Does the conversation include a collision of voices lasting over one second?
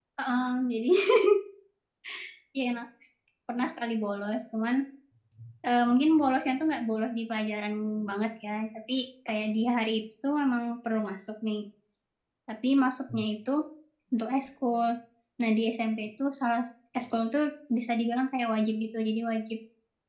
No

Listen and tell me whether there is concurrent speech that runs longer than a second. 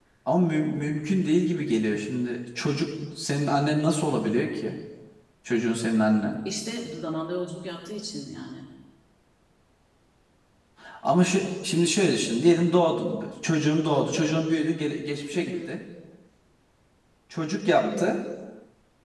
No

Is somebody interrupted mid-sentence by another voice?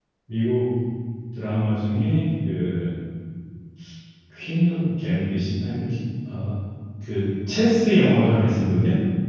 No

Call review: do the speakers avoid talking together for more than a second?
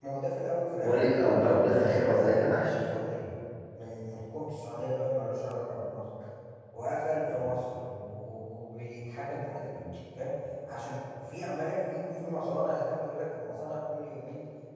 No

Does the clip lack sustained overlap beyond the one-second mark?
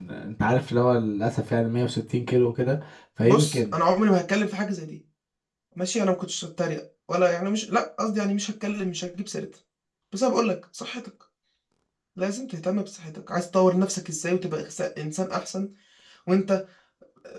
Yes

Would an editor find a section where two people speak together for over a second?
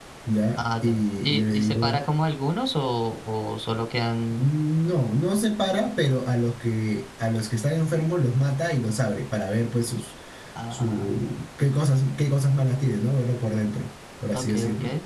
Yes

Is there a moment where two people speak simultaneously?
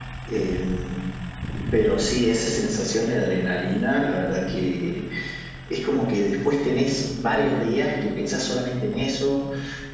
No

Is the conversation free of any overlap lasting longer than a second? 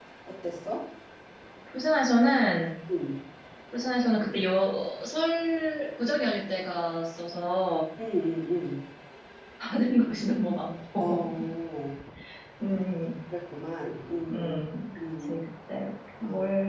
Yes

